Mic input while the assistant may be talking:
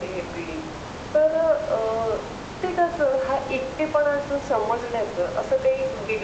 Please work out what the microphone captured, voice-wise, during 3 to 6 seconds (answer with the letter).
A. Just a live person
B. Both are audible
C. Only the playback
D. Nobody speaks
C